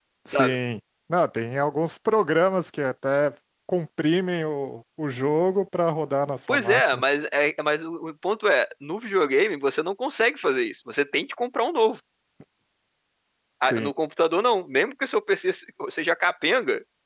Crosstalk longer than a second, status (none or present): none